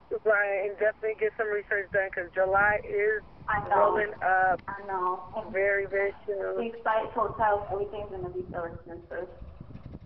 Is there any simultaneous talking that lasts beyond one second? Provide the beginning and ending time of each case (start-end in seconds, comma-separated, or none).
none